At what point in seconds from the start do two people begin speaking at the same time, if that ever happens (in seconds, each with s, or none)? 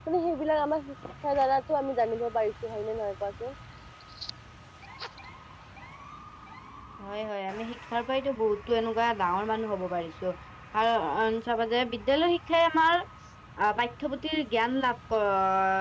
none